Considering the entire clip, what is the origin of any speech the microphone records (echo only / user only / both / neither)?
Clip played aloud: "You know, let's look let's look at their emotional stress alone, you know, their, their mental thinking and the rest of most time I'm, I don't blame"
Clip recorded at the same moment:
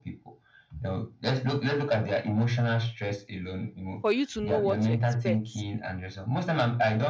both